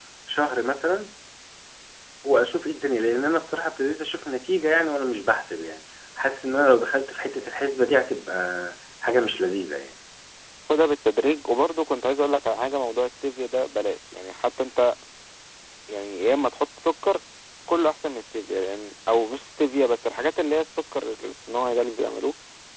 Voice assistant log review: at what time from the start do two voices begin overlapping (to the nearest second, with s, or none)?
none